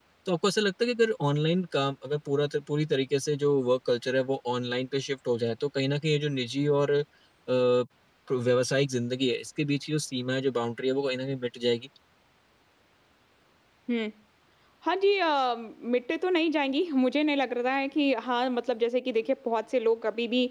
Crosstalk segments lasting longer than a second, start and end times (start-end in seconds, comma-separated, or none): none